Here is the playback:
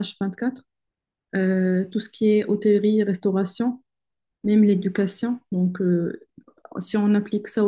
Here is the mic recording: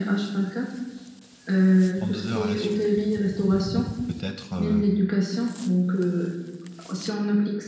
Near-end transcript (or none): deux heures à la suite. Donc, ils feront peut-être, euh,